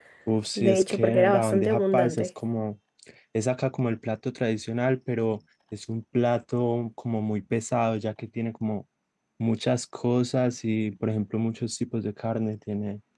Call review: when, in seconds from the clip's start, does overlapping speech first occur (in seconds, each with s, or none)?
0.6 s